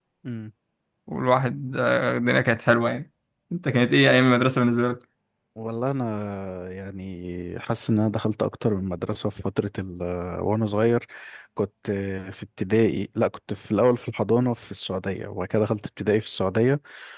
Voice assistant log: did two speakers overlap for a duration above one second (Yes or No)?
No